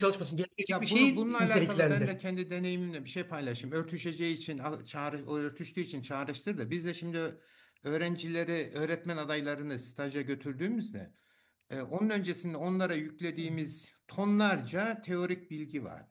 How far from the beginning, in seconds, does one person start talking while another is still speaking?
0.7 s

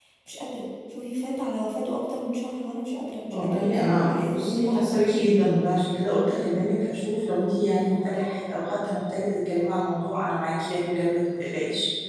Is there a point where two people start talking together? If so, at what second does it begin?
3.3 s

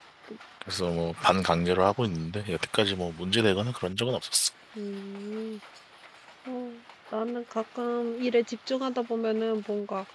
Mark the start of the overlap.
none

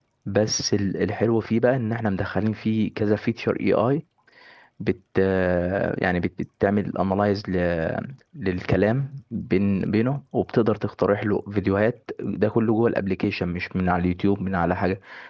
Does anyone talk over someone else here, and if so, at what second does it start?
none

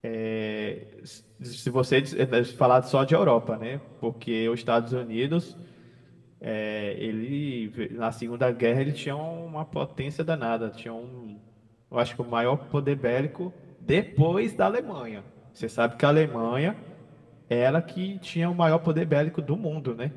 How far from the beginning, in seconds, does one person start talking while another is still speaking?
none

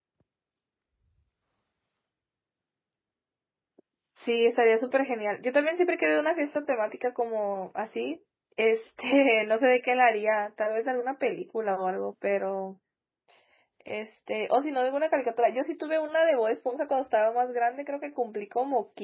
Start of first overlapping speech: none

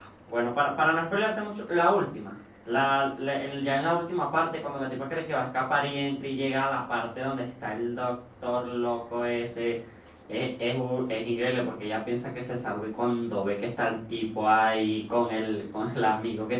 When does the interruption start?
none

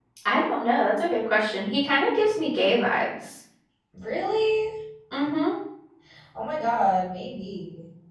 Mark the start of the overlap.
none

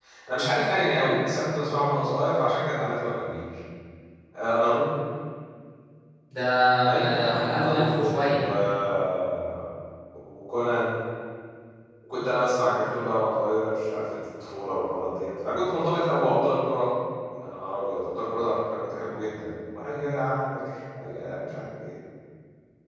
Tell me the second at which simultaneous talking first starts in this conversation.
6.8 s

